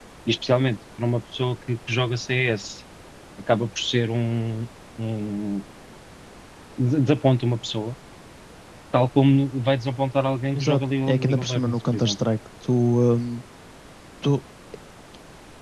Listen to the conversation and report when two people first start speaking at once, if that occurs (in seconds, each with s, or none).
10.6 s